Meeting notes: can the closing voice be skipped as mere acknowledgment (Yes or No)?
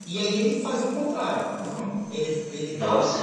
Yes